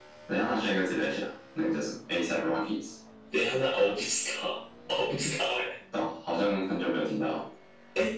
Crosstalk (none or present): none